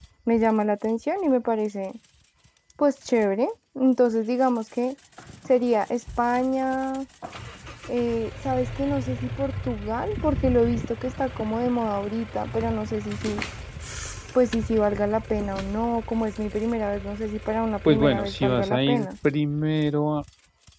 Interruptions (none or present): present